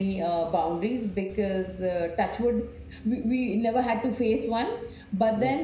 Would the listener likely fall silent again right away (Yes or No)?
Yes